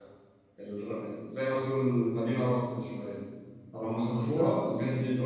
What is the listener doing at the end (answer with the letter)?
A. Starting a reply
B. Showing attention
B